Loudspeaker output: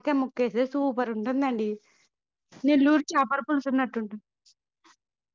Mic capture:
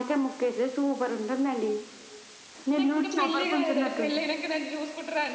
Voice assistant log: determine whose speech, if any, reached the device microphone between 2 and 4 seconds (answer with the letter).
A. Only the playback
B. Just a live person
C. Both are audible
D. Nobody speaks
C